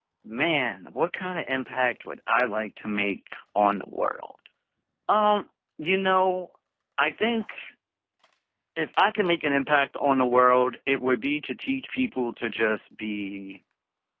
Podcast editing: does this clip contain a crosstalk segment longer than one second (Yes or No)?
No